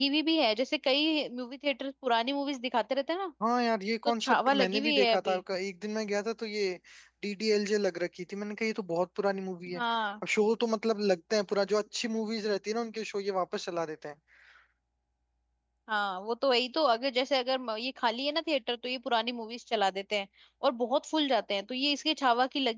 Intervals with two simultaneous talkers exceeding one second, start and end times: 4.0-5.4

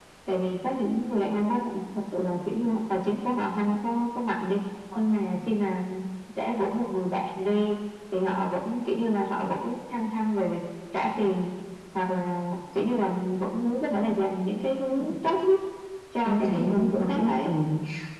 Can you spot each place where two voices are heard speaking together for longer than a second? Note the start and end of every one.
16.2-17.5

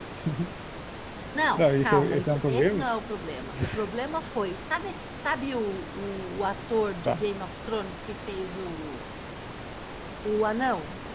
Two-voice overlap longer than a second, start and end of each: 1.6-2.9

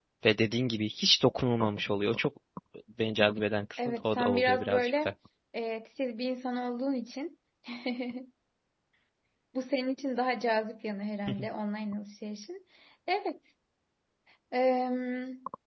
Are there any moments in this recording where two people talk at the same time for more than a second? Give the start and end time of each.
3.8-5.1

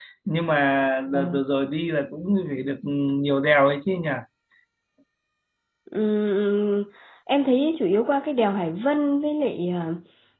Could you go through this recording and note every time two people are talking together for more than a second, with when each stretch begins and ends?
none

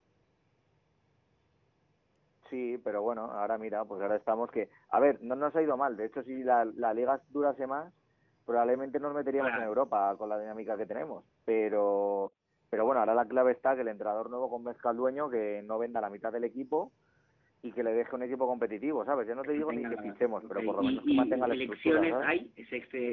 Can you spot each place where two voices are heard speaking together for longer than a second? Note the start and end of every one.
19.4-22.3

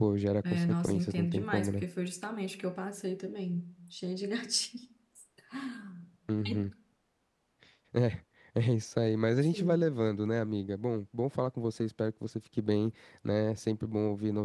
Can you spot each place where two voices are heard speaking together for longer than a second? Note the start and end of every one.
0.5-1.8

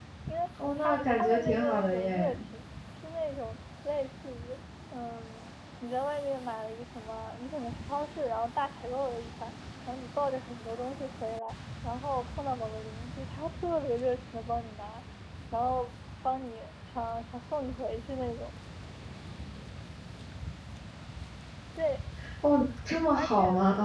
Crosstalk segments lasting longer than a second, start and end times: 0.8-2.4

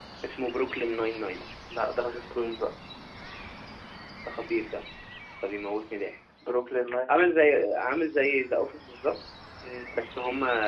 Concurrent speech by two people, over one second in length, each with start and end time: none

